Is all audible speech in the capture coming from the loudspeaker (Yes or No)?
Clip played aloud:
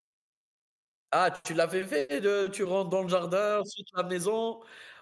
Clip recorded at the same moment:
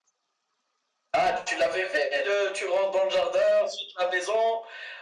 Yes